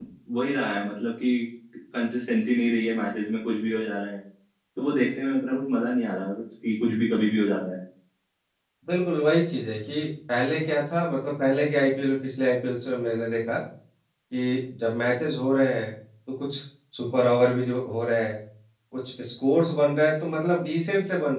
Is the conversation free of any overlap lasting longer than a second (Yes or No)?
Yes